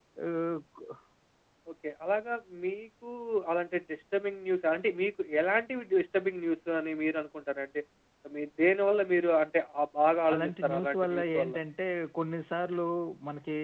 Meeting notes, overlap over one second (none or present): present